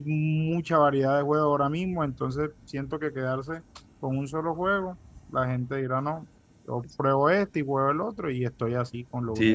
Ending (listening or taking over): taking over